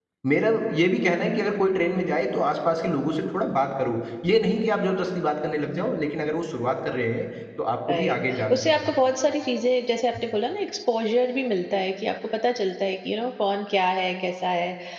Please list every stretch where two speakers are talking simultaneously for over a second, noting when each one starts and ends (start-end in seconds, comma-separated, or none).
7.9-9.2